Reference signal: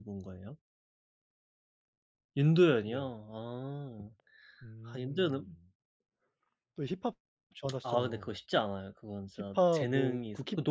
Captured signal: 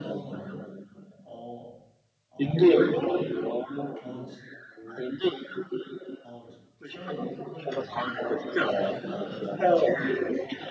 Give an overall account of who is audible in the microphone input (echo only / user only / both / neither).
both